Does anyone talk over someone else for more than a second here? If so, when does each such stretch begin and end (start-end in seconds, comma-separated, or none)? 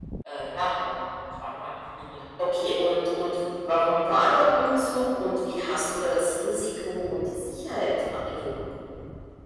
none